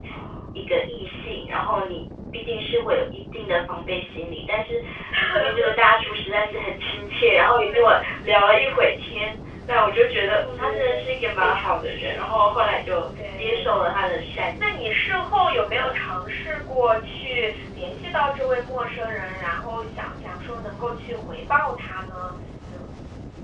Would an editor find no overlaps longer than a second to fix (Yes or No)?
No